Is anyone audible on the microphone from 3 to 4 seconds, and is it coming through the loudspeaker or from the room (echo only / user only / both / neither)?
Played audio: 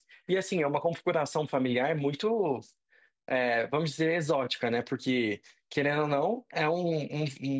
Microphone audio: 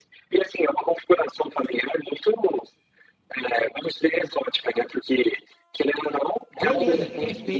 echo only